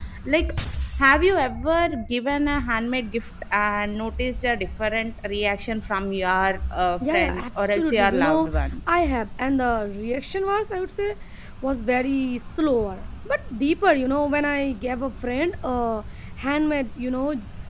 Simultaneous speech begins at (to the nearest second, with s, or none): 7 s